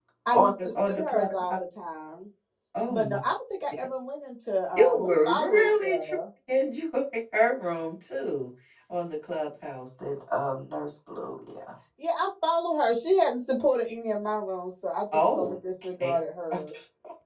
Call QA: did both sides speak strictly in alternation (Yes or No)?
No